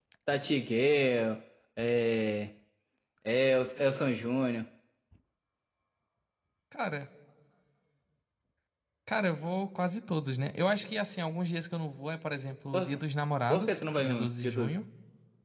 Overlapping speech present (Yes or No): Yes